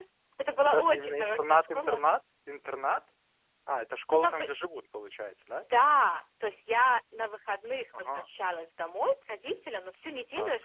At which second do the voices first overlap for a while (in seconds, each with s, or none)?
0.6 s